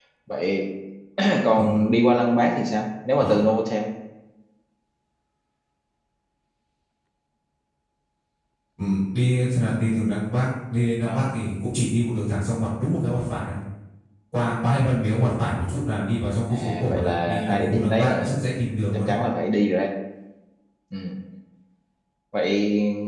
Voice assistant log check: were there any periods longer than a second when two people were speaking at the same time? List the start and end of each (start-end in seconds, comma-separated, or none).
16.5-18.4